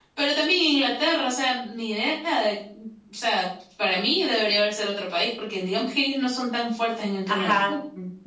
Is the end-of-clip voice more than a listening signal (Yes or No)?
Yes